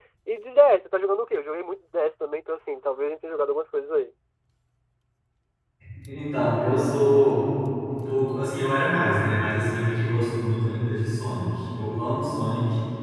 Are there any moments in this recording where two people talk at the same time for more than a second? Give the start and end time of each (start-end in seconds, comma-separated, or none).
none